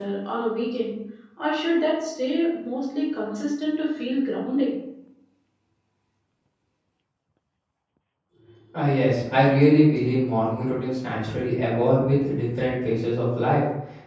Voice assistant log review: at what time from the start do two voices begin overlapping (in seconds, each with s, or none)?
none